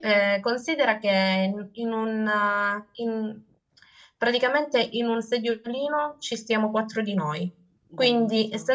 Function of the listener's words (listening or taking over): listening